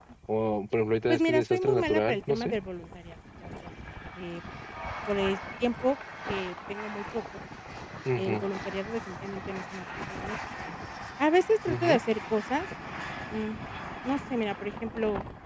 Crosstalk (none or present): present